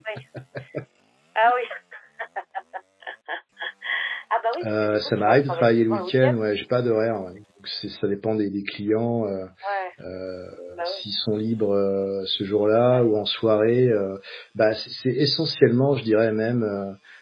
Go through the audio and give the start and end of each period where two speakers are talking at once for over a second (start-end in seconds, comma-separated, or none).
4.6-6.4